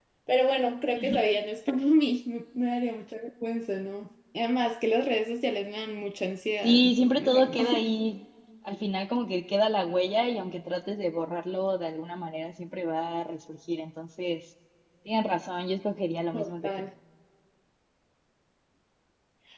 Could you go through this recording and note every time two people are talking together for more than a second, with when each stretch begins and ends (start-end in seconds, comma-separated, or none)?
6.6-7.8